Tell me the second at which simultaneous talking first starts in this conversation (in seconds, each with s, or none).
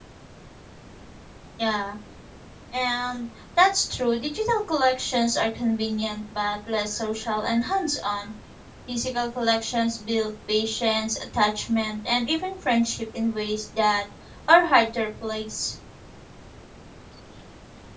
none